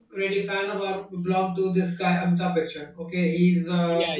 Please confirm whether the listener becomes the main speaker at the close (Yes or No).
No